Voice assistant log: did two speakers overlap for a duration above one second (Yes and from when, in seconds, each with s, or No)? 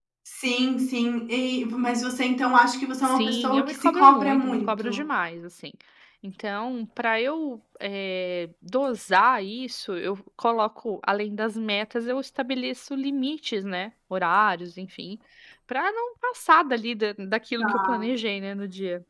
Yes, from 3.0 s